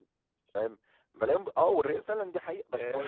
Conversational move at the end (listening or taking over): taking over